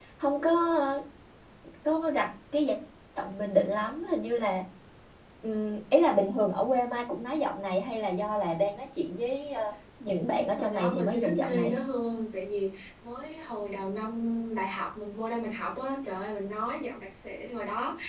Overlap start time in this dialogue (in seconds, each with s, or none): 10.3 s